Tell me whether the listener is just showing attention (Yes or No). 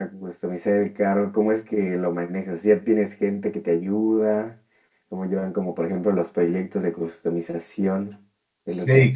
No